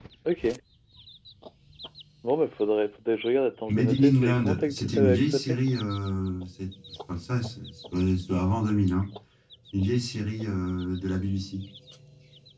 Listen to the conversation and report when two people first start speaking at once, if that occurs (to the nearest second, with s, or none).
4 s